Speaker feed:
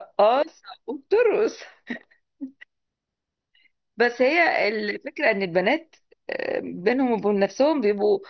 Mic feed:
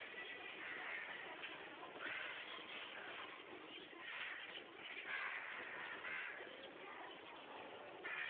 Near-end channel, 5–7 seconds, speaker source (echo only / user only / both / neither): neither